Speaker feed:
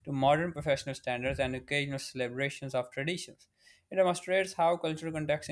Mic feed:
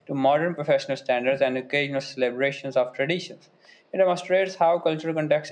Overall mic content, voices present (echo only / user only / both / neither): echo only